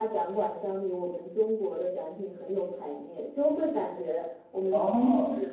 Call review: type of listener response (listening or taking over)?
listening